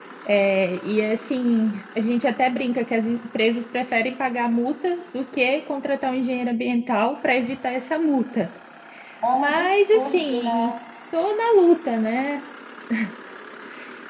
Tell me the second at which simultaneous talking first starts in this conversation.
9.3 s

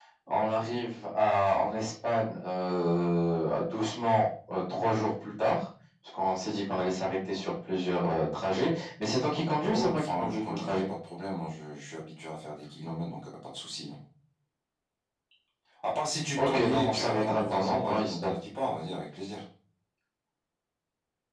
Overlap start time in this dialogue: 9.6 s

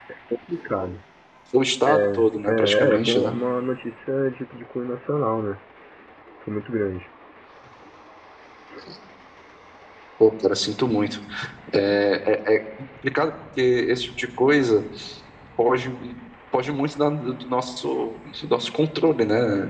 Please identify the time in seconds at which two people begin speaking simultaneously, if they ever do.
1.9 s

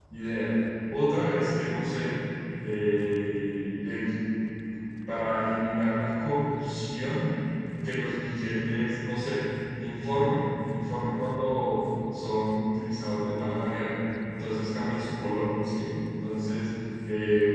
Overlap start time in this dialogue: none

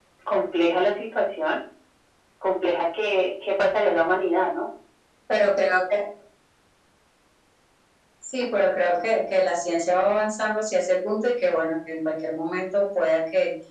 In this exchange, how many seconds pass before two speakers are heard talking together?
none

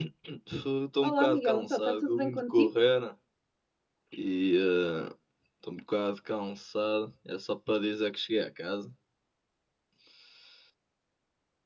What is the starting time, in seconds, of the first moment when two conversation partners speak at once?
1.0 s

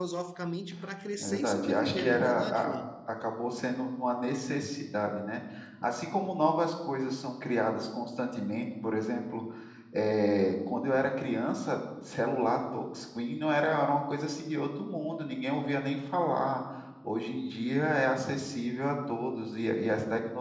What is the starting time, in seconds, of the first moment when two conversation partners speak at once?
1.2 s

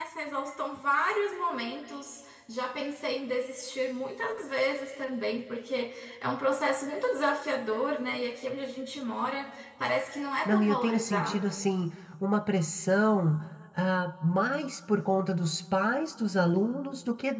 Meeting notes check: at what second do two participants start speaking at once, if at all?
10.4 s

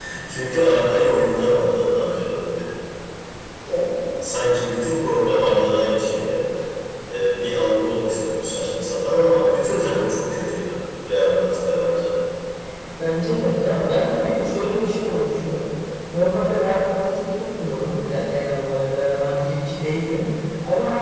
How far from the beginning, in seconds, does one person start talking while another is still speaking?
none

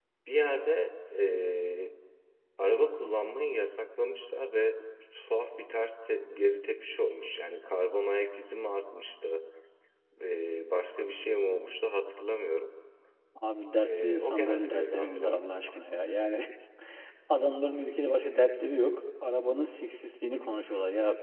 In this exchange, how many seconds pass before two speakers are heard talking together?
13.8 s

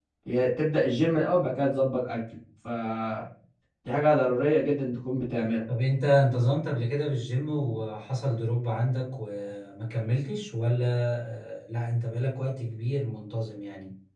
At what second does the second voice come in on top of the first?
none

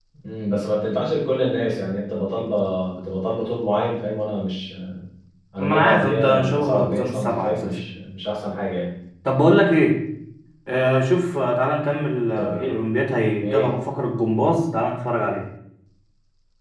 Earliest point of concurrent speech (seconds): 5.6 s

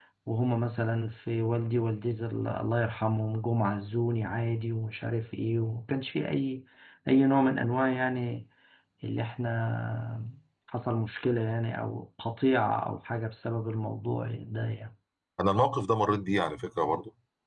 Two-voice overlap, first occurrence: none

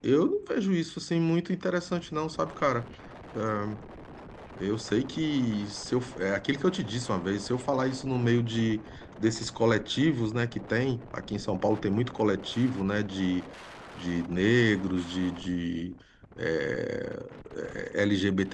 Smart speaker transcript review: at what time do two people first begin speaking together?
none

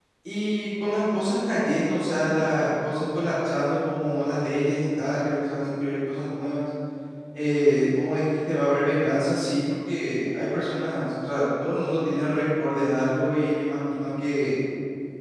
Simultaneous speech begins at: none

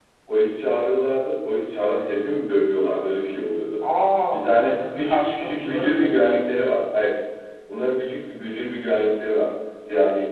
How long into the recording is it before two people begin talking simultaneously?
4.3 s

